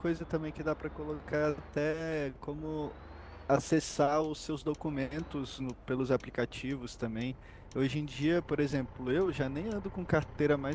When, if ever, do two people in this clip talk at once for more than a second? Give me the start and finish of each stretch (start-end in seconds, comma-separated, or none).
none